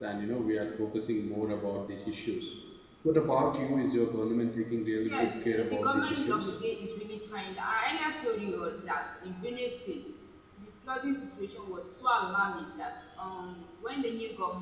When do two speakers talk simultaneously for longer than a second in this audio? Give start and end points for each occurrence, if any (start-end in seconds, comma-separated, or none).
5.0-6.5